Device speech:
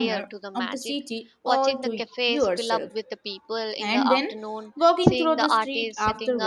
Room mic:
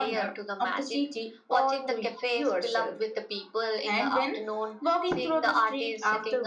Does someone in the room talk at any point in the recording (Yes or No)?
No